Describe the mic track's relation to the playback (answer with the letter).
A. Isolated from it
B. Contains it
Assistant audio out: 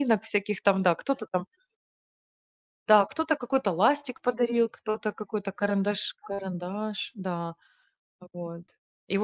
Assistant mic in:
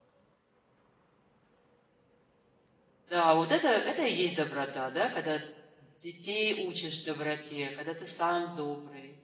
A